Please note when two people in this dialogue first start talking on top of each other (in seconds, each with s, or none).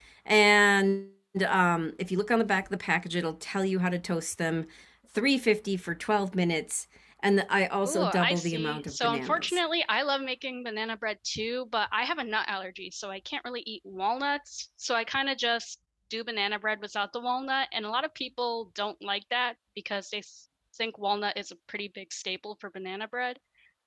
7.8 s